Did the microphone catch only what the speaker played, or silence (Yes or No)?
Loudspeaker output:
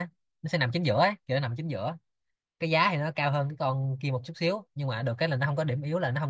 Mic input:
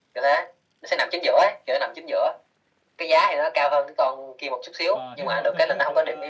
No